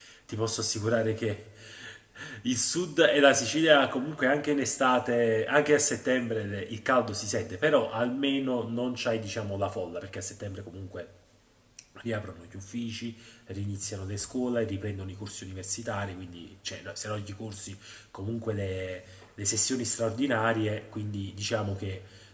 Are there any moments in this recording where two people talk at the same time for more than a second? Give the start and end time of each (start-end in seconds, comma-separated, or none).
none